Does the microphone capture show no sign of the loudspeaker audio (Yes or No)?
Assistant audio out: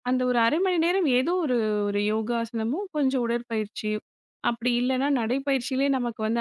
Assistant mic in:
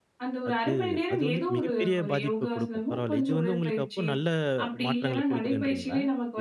No